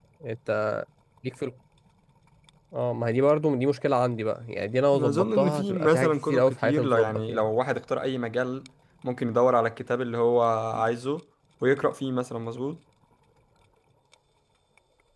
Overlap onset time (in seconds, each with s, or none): 4.9 s